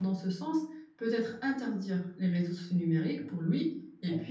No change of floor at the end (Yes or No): Yes